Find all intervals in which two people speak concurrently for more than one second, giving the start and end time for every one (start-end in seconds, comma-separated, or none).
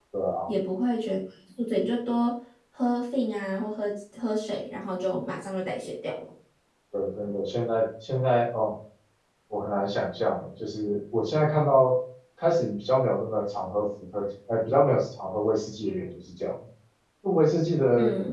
none